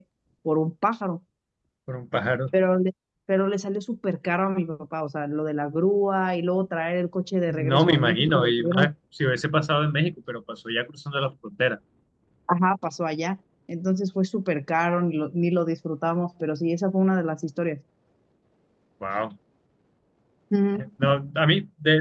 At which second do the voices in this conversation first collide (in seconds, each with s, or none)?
7.5 s